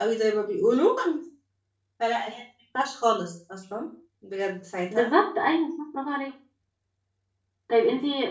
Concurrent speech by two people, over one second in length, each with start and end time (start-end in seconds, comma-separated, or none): none